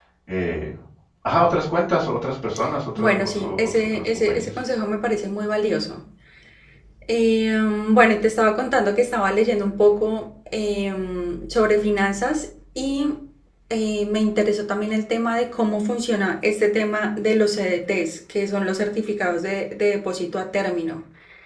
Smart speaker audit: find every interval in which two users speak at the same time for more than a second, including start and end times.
3.0-4.5

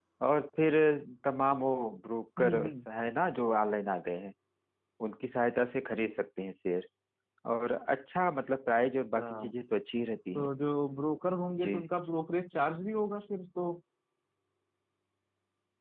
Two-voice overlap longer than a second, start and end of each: none

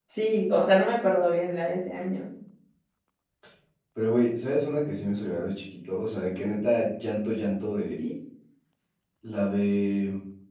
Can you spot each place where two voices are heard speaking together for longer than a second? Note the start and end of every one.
none

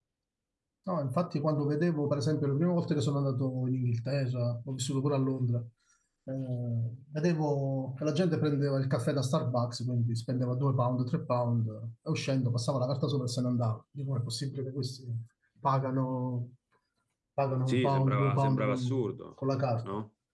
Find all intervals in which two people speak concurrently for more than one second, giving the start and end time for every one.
17.7-19.2

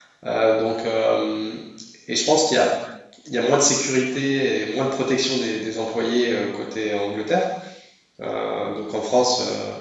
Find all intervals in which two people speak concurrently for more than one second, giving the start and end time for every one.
none

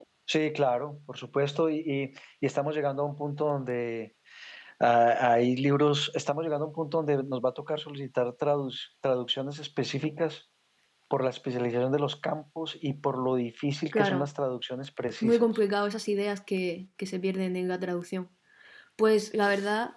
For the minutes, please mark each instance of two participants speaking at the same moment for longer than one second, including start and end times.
none

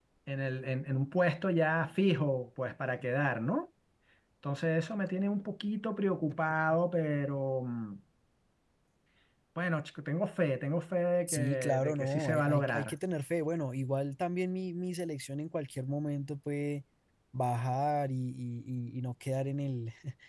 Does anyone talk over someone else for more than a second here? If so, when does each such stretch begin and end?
11.3-12.9

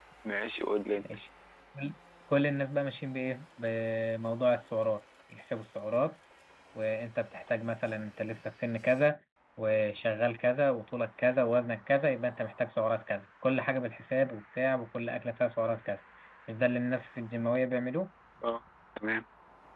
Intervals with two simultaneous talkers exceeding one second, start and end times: none

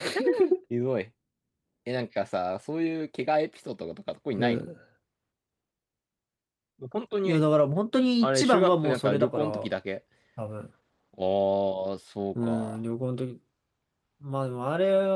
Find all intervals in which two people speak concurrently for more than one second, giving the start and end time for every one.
8.2-9.5

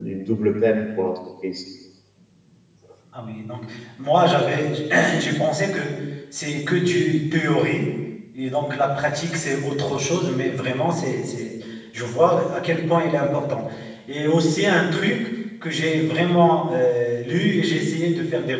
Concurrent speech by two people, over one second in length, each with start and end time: none

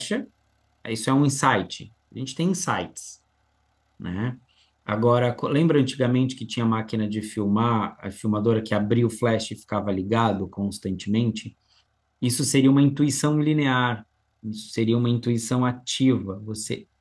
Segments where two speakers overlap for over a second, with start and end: none

